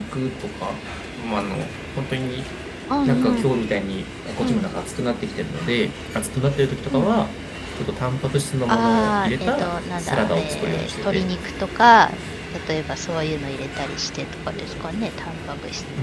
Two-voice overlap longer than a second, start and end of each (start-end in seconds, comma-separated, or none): 8.7-11.3